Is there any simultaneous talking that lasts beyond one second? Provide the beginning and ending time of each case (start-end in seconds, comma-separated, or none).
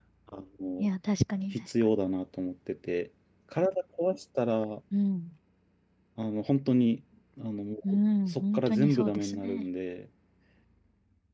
8.3-9.6